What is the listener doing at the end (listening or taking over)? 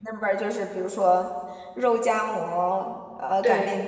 listening